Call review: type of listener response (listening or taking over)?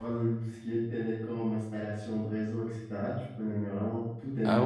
taking over